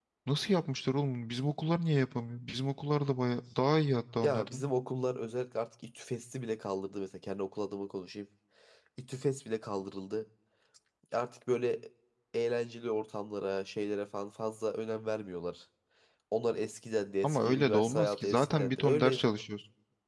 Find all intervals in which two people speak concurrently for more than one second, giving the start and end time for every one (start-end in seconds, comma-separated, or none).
17.2-19.3